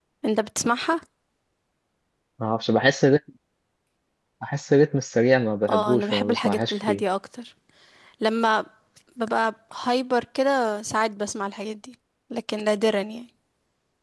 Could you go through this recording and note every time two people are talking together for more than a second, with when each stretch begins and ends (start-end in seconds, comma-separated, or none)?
5.7-7.0